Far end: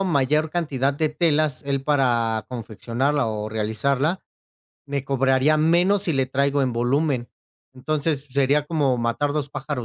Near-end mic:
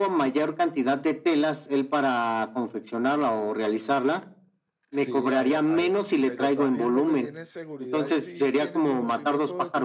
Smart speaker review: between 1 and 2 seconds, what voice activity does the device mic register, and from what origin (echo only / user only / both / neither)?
echo only